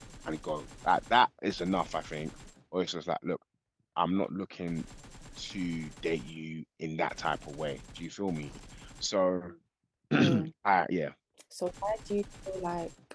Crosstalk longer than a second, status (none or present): none